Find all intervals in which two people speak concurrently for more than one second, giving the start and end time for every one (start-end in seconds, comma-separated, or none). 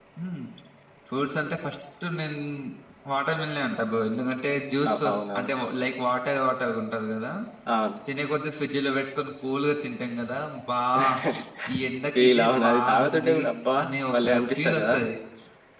12.2-13.4